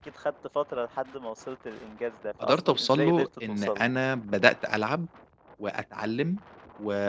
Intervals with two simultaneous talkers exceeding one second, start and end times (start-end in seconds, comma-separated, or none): 2.4-3.9